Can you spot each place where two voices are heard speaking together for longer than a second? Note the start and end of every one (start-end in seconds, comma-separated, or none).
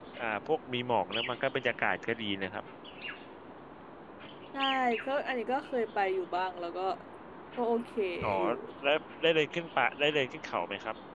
none